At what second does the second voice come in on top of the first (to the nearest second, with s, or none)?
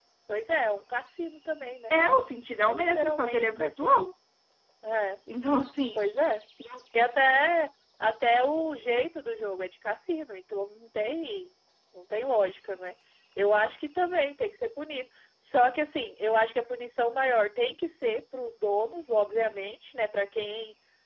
3 s